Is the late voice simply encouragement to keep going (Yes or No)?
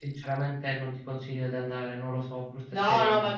No